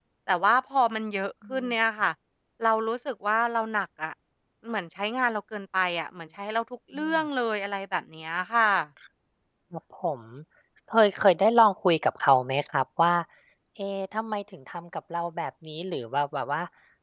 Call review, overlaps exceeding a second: none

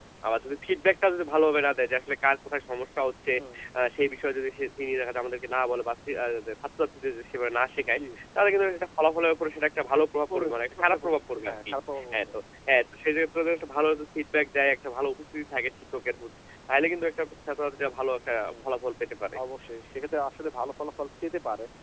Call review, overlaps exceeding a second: present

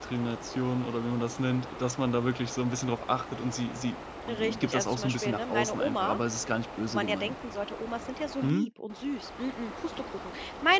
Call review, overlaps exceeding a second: present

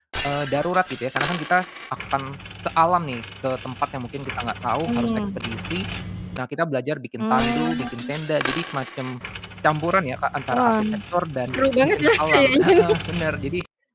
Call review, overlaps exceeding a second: present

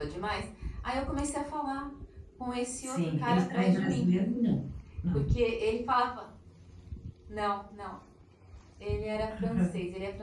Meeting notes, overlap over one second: present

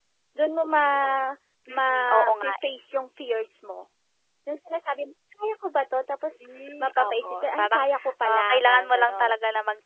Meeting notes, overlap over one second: present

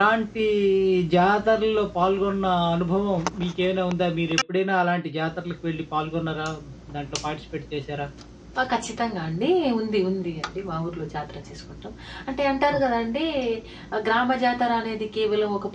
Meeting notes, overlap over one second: none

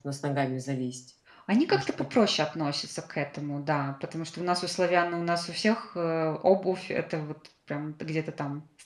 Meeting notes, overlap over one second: none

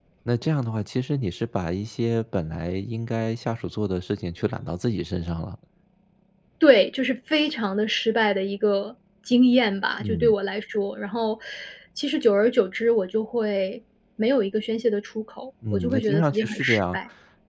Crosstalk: present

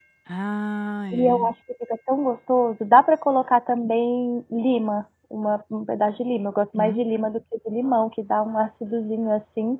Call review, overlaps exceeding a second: none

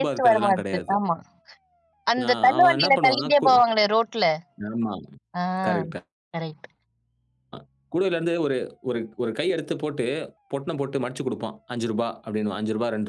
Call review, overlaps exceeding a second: present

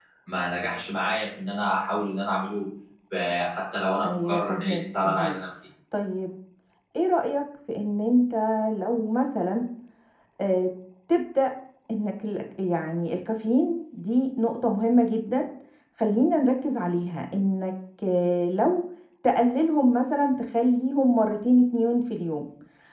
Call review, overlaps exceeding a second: present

